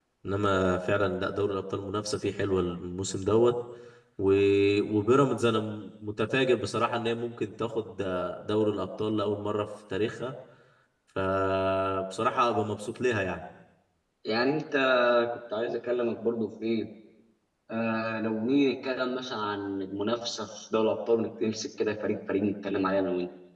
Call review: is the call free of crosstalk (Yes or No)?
Yes